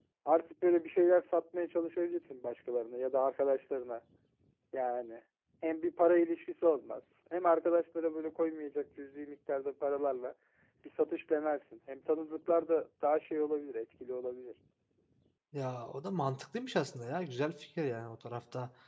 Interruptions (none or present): none